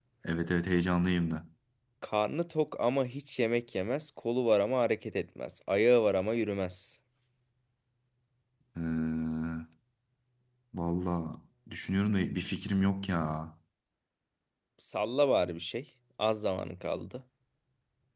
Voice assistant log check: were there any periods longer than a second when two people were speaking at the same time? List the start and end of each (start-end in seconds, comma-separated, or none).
none